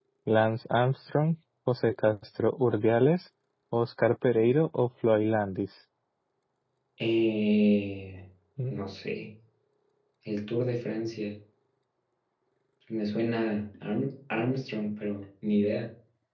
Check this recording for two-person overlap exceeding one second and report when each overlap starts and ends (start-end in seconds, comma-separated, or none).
none